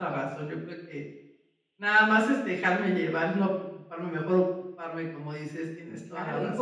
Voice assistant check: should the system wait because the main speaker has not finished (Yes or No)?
No